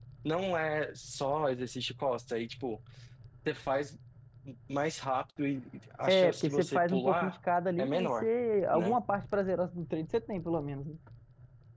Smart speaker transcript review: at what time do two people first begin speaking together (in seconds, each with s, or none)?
6.1 s